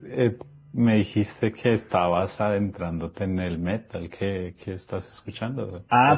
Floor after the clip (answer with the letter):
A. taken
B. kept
A